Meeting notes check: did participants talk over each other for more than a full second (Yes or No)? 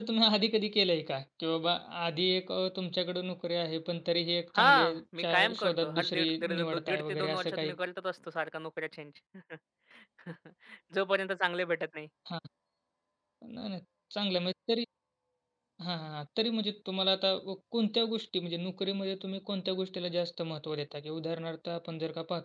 Yes